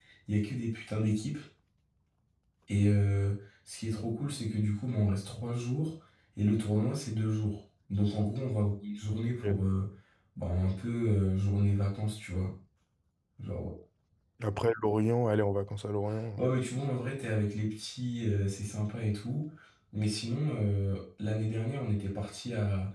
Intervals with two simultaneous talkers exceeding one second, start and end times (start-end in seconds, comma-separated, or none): none